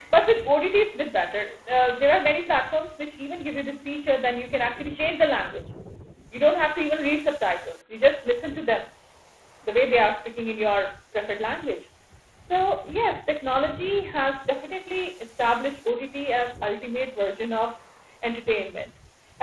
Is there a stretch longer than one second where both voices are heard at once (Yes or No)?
No